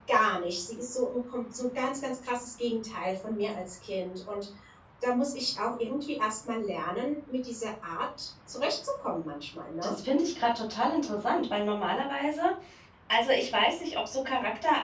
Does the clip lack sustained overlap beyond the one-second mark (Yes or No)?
Yes